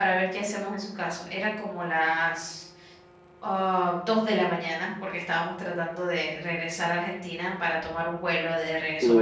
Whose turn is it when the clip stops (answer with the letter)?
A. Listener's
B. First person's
A